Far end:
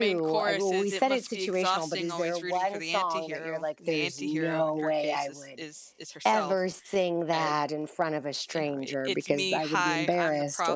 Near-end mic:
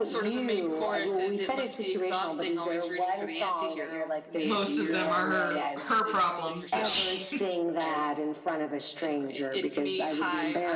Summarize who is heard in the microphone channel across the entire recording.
both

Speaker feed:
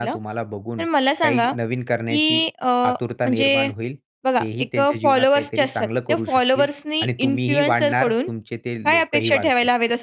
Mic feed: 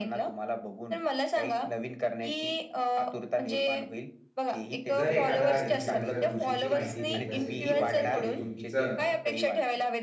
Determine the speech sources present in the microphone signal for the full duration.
both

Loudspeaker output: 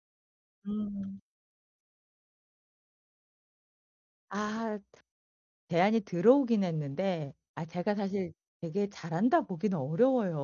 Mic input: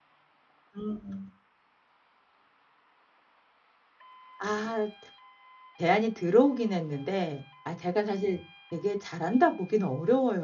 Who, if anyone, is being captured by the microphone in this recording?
echo only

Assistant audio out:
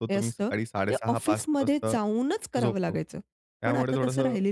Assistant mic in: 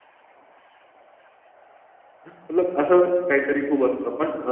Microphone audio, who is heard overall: user only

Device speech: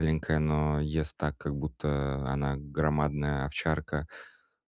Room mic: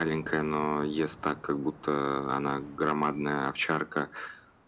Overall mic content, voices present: echo only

